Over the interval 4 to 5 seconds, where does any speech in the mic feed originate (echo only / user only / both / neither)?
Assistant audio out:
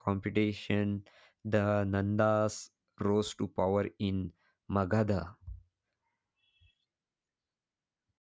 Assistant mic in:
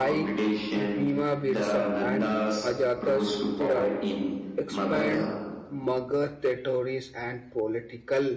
both